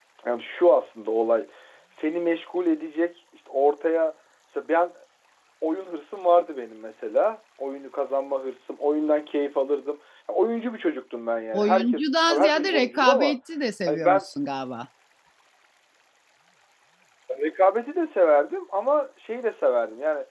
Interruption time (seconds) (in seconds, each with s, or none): 11.5 s